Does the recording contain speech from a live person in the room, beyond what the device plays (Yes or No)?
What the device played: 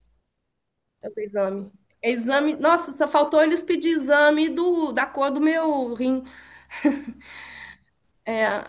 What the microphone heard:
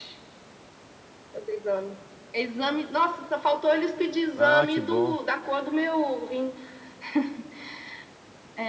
Yes